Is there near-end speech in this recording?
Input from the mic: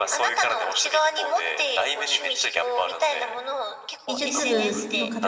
Yes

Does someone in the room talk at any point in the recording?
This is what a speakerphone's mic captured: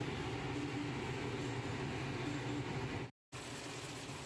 No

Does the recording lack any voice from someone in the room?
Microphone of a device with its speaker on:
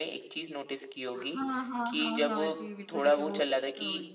No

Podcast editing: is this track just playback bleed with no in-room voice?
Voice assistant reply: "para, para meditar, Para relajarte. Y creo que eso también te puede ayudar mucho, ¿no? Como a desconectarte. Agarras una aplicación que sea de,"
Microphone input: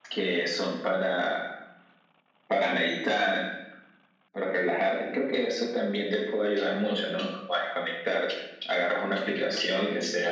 No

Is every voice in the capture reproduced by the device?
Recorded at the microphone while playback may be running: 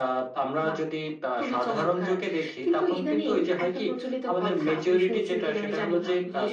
Yes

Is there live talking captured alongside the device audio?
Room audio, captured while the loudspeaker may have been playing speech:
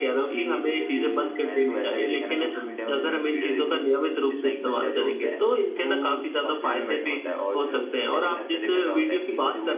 No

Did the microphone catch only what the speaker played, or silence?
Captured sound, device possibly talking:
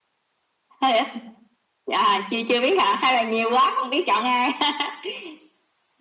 Yes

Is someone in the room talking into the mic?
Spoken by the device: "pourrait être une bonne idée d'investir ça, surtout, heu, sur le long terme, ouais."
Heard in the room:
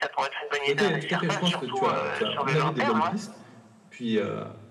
Yes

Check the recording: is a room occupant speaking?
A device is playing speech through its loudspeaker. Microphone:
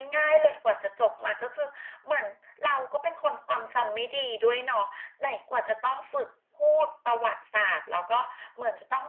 No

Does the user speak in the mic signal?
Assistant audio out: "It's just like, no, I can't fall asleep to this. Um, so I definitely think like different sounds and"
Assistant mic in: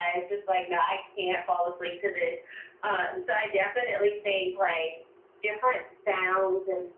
No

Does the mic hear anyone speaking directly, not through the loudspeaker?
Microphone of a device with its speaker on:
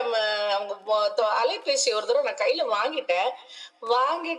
No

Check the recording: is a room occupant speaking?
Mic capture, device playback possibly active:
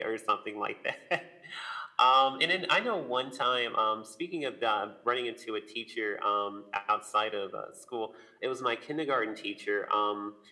No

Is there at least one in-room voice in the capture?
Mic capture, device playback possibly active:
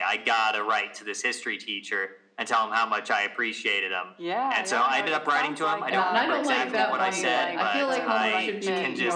Yes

